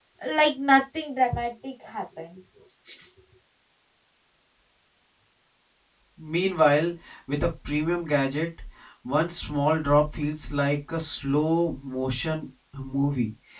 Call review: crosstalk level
none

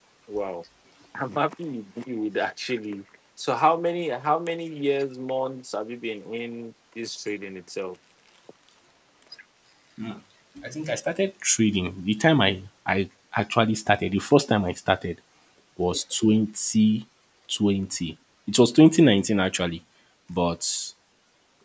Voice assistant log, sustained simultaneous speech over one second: none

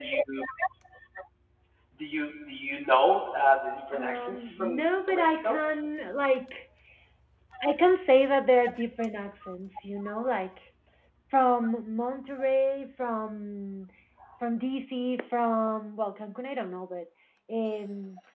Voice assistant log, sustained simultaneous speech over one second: present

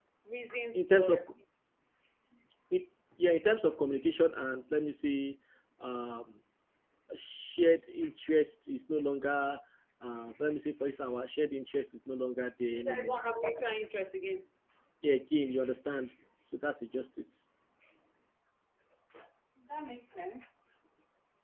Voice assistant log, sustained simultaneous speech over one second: none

